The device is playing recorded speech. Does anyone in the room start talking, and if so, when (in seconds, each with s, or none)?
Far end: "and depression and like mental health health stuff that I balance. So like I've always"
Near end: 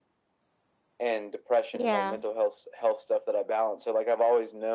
1.7 s